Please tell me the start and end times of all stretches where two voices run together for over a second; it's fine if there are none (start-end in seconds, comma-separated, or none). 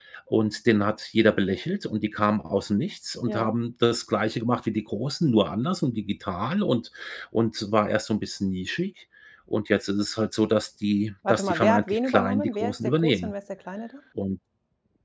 11.3-13.3